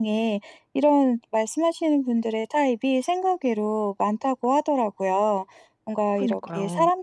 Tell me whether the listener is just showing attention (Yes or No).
Yes